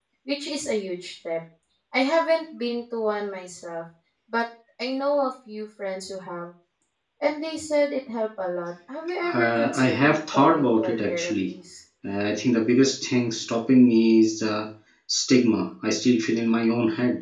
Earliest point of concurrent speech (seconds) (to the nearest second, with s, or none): 9 s